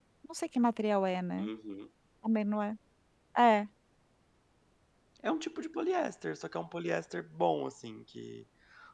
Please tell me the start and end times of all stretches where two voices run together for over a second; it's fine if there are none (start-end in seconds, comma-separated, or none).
none